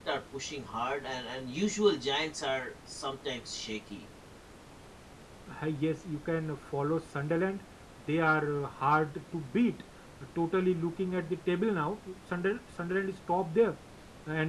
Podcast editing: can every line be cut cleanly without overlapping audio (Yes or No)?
Yes